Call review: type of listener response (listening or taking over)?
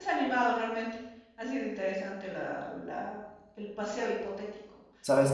listening